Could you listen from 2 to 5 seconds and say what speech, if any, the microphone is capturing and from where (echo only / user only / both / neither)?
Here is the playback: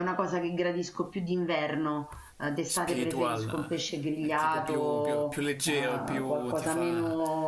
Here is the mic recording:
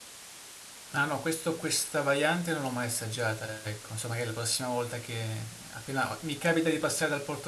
user only